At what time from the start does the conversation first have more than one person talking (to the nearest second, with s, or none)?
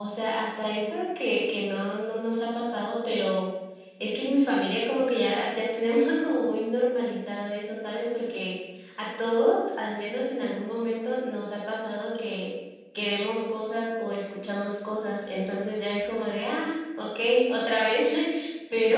none